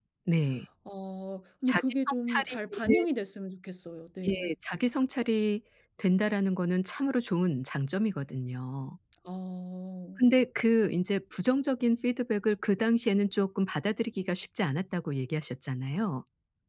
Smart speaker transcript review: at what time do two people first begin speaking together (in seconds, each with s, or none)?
1.7 s